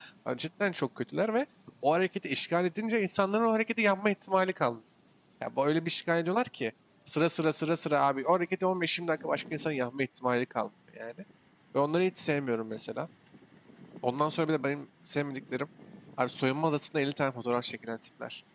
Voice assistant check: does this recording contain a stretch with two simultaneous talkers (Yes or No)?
No